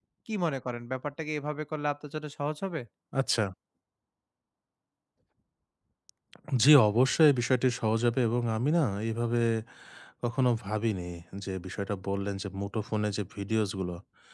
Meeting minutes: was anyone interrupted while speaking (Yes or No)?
No